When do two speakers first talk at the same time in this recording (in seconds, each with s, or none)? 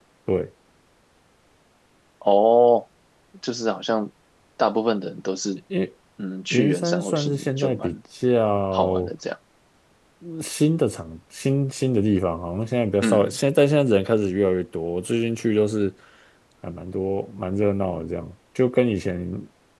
6.5 s